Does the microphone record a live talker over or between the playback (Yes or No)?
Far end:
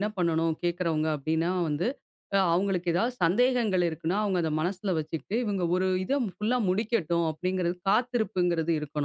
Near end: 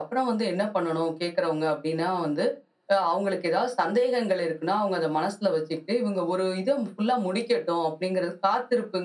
No